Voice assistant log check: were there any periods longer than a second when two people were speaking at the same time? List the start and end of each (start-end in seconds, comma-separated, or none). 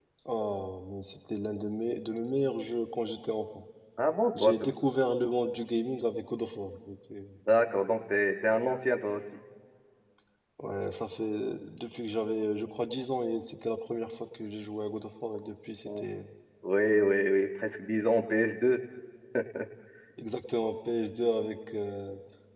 none